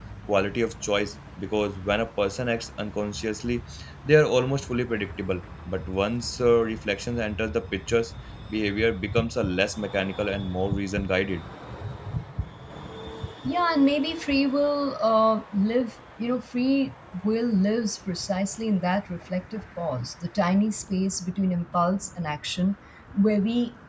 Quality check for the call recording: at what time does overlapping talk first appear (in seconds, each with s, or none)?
none